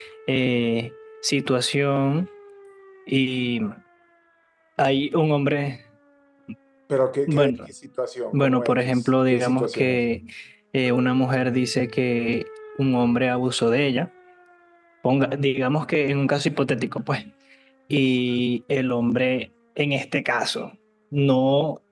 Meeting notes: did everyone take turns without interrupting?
No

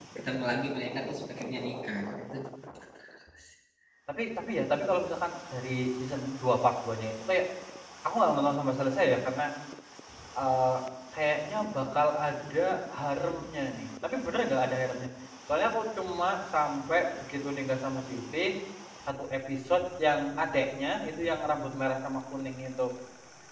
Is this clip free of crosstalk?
Yes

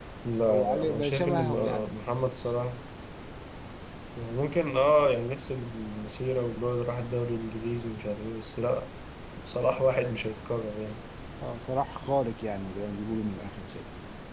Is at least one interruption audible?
Yes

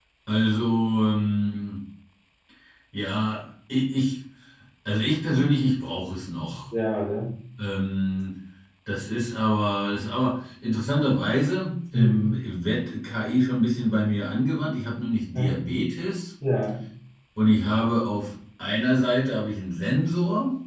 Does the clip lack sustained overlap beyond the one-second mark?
Yes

